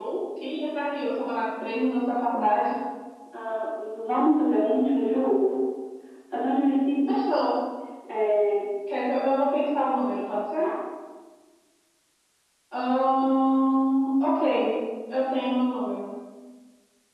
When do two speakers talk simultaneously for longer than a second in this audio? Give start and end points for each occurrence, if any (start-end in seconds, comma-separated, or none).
none